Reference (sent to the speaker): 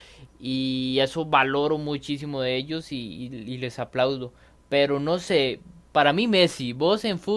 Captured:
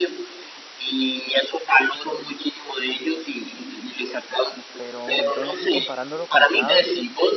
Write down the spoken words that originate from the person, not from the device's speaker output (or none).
Pero entonces sí, comparándolo con Chávez,